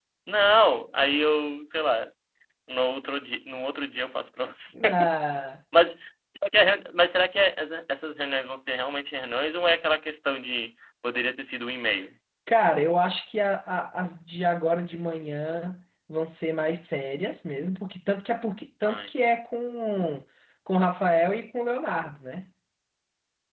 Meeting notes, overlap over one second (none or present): none